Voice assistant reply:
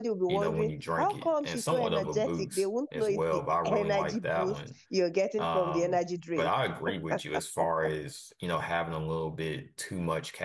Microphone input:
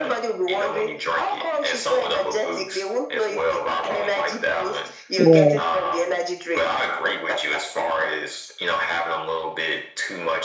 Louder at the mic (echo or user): user